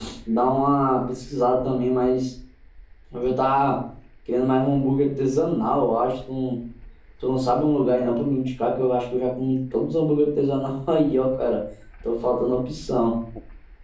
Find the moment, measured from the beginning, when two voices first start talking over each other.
none

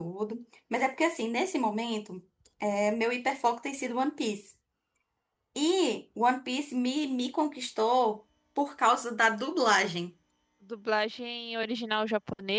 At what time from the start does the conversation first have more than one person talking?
none

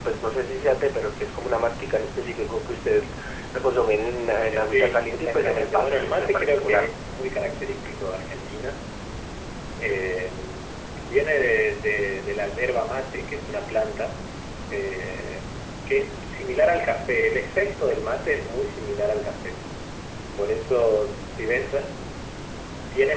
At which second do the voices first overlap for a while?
4.5 s

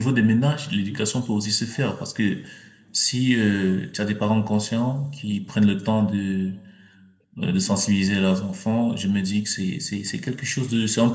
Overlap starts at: none

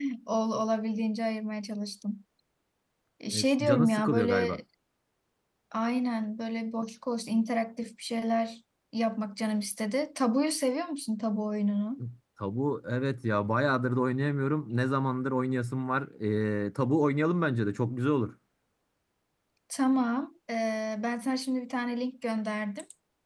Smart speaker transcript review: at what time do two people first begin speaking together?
3.3 s

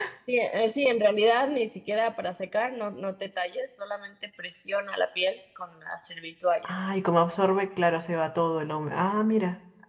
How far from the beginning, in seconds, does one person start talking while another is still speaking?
none

